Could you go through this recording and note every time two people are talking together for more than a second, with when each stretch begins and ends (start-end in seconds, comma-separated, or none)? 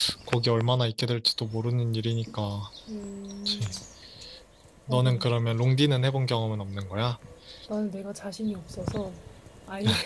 none